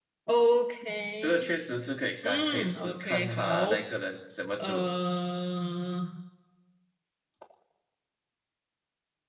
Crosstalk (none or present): present